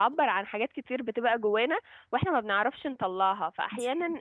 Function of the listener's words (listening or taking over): listening